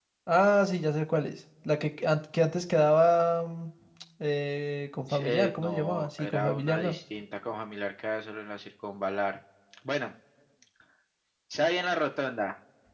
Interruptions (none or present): present